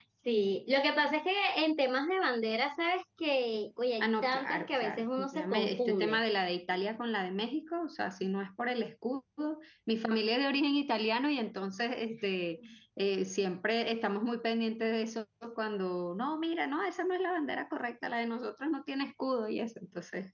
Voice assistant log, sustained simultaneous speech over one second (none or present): present